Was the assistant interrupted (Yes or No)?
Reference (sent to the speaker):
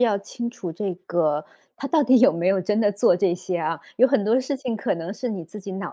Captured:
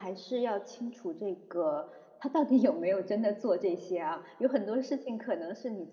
No